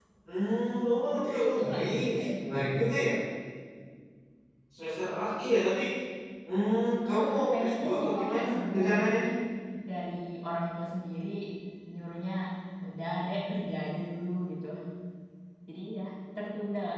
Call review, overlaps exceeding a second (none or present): present